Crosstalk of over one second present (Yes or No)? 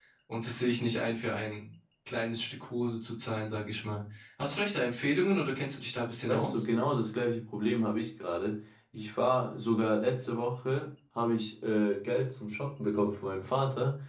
No